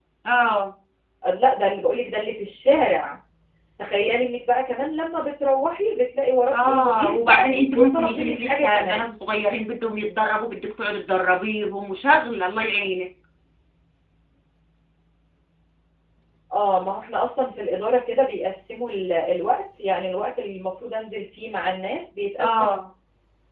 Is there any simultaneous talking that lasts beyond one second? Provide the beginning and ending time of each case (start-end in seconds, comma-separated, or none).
6.5-9.1